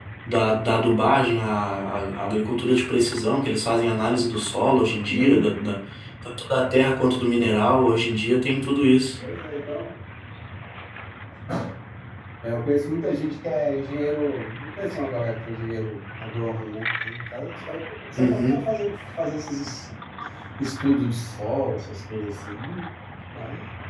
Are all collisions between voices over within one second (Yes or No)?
Yes